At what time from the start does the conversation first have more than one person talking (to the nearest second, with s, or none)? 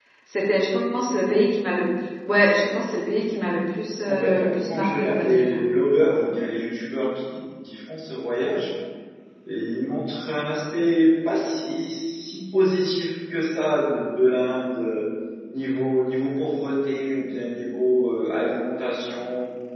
4 s